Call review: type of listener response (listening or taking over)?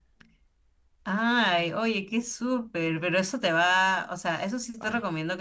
listening